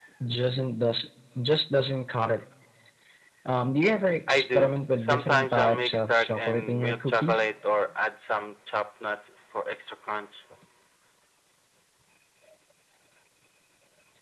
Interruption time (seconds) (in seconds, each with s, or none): 4.3 s